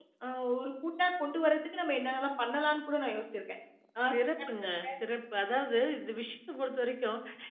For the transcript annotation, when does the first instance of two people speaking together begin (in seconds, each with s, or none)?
none